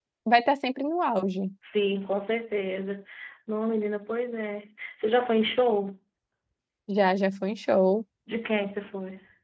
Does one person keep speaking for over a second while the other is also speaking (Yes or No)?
No